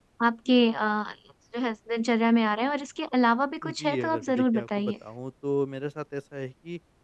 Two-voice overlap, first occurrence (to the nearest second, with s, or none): 4 s